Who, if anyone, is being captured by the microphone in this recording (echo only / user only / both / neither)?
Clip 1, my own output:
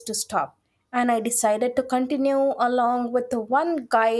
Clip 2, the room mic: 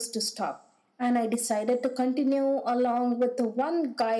echo only